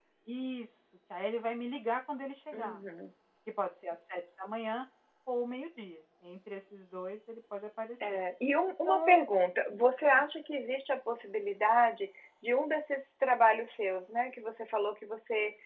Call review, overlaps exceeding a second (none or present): none